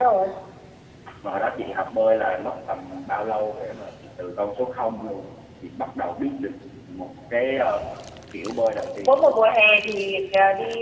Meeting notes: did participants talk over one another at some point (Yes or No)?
No